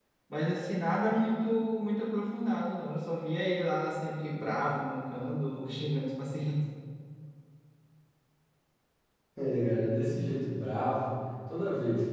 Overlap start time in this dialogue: none

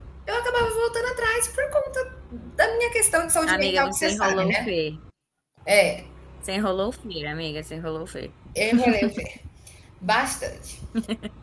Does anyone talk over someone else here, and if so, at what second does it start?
3 s

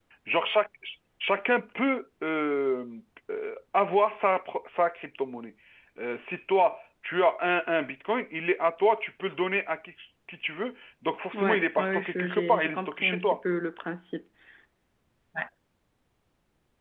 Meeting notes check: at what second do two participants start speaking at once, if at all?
11 s

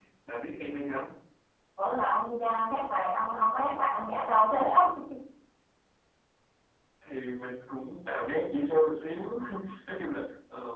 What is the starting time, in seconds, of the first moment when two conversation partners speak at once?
none

